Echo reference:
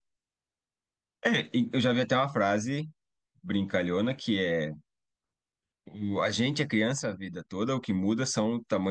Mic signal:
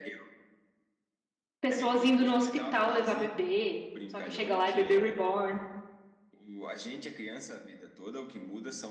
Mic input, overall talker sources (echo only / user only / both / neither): both